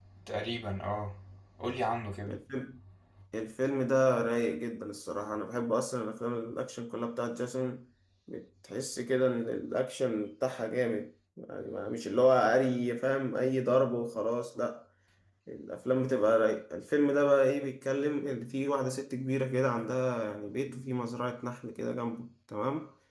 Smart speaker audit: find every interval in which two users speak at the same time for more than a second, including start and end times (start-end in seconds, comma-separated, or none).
none